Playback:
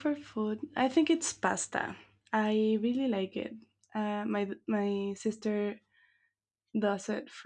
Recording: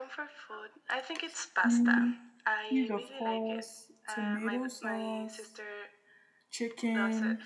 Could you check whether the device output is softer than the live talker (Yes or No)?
Yes